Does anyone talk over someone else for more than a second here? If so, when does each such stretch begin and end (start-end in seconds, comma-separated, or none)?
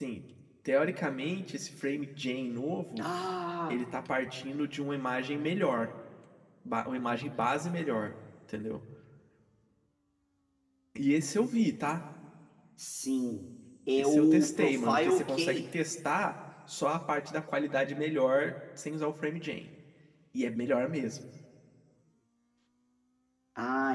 14.0-15.6